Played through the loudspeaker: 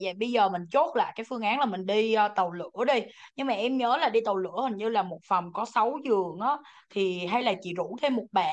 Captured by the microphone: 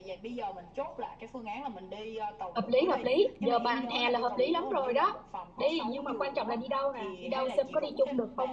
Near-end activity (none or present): present